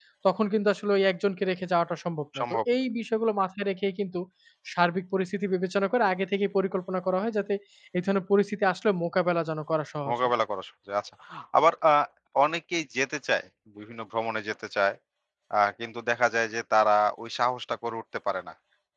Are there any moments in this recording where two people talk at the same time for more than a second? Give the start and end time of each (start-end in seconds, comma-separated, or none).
none